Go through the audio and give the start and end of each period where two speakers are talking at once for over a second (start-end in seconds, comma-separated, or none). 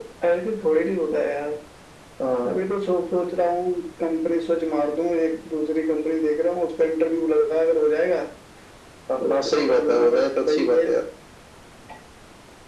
9.3-10.8